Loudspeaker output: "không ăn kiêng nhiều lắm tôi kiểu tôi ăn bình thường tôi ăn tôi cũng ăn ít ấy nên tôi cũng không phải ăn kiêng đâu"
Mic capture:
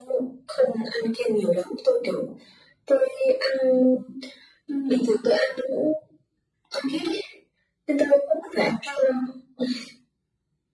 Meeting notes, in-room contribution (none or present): none